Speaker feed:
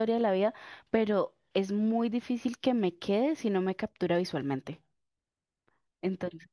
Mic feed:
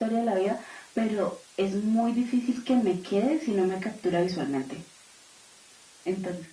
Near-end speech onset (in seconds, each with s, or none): none